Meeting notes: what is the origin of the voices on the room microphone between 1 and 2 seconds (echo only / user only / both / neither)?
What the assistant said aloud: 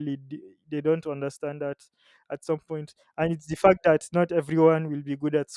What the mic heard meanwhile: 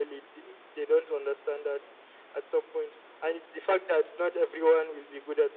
echo only